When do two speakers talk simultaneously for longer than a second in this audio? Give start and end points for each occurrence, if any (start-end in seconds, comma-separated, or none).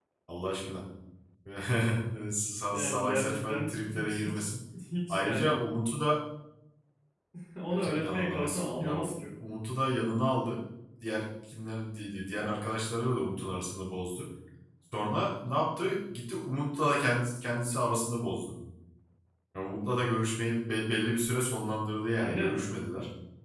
2.7-4.4, 7.7-9.1